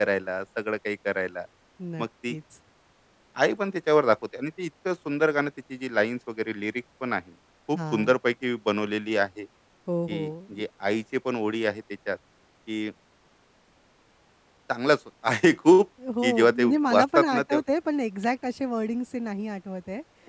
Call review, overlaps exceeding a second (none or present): present